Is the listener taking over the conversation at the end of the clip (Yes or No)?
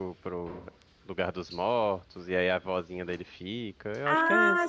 Yes